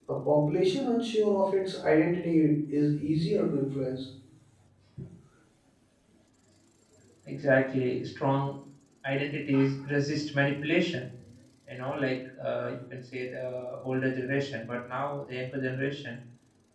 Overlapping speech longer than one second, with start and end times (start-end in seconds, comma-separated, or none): none